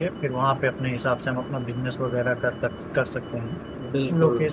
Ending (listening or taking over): listening